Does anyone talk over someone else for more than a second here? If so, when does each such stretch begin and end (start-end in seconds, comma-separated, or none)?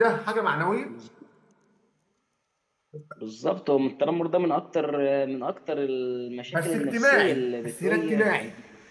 6.5-8.4